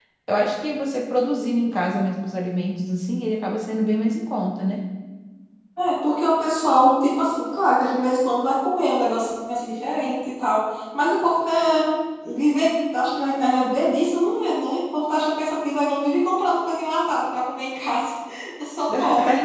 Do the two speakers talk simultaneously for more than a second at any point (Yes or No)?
No